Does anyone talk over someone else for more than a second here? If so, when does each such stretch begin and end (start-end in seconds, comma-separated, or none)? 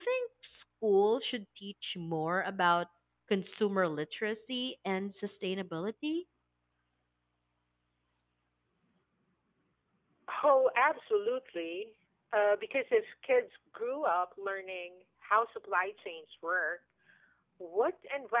none